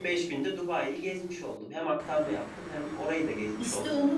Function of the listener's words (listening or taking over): taking over